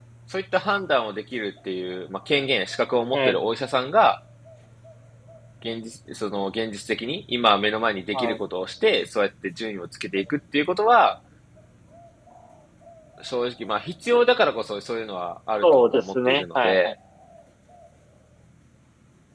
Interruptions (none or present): present